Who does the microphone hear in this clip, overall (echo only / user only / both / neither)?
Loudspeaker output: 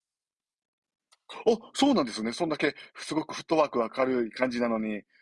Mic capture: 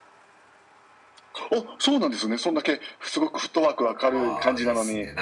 both